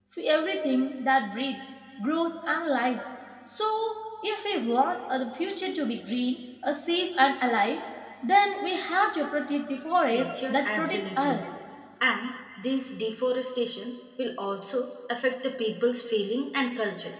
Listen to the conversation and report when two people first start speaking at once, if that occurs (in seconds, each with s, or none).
10.1 s